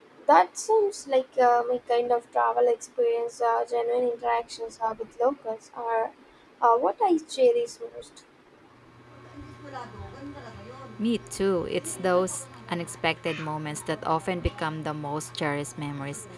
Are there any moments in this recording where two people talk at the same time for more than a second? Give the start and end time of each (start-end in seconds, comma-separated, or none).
none